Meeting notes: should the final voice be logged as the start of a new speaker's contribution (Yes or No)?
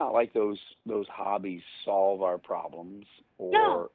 No